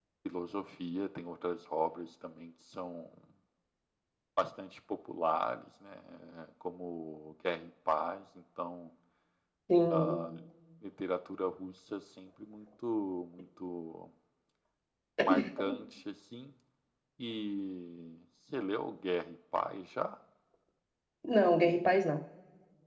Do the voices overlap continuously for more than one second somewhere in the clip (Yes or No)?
No